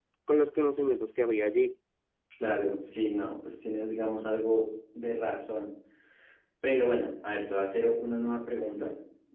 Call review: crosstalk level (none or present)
none